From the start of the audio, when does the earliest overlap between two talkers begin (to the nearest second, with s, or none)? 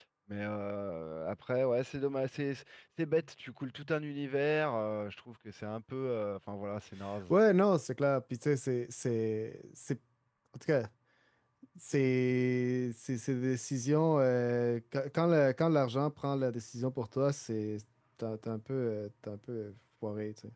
none